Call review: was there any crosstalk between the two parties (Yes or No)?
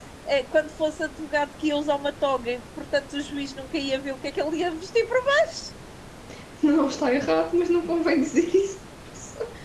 No